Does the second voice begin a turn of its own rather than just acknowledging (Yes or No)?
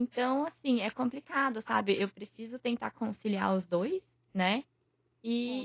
No